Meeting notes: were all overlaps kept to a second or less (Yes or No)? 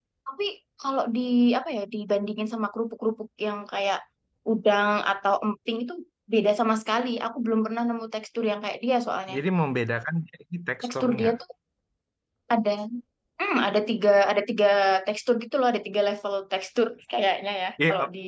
Yes